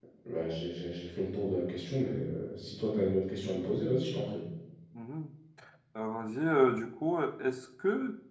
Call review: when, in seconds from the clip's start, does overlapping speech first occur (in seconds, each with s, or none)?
none